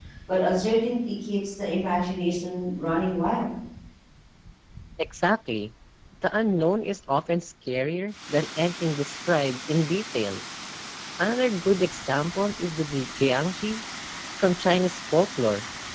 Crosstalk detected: No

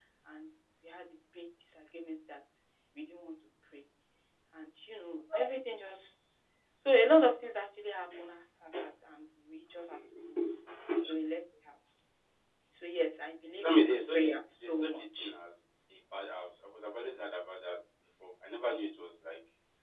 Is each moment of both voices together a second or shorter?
No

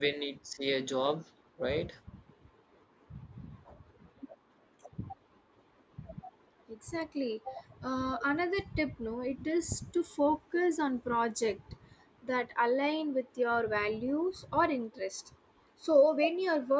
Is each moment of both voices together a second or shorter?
Yes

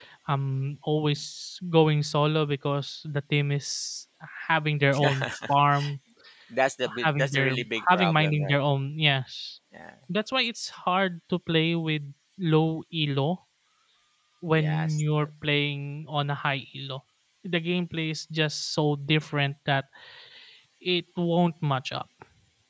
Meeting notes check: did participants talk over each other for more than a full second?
Yes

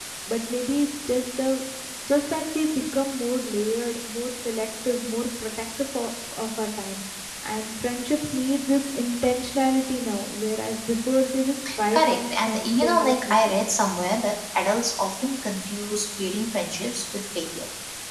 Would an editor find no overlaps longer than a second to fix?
No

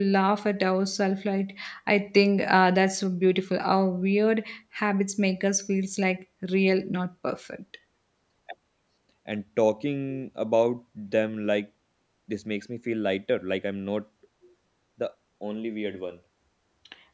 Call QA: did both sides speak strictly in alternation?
Yes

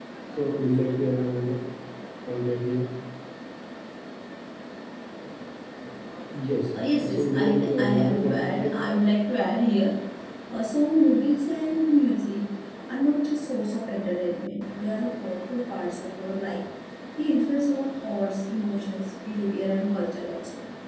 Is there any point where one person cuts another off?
Yes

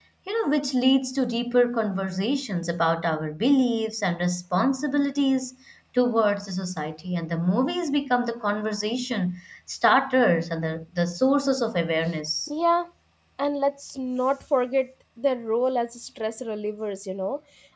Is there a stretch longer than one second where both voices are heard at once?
No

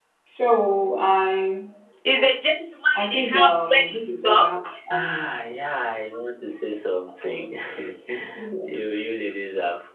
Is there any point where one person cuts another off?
Yes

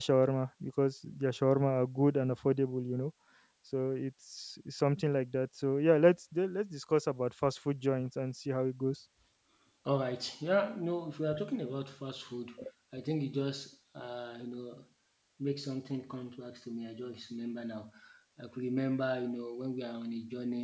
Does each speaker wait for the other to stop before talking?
Yes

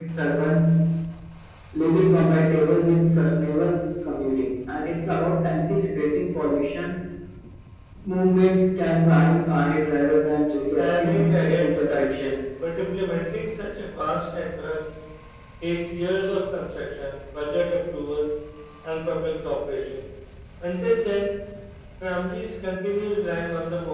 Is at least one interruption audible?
Yes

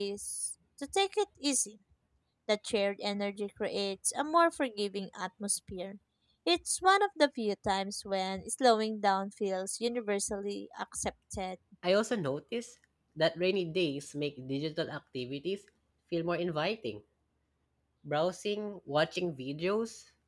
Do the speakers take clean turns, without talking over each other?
Yes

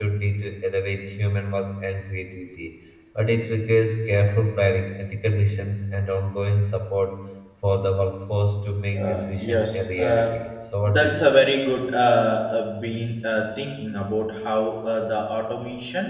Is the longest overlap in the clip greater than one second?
Yes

